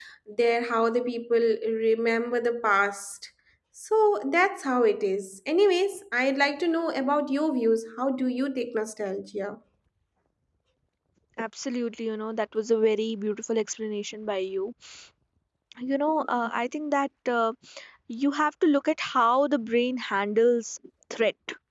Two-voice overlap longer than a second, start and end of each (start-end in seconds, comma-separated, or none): none